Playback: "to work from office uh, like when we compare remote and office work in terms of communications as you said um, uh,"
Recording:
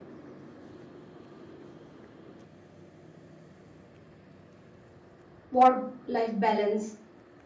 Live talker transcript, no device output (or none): work life balance